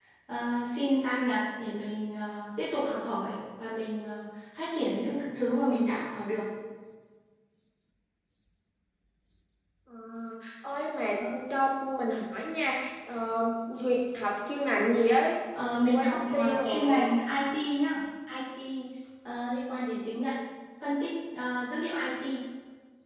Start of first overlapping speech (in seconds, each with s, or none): 15.6 s